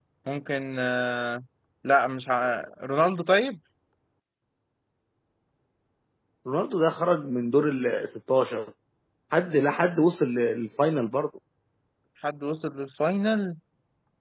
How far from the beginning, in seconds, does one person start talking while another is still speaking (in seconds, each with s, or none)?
none